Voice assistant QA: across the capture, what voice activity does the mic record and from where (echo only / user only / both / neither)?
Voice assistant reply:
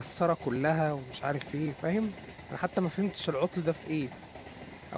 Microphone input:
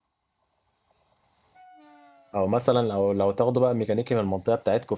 user only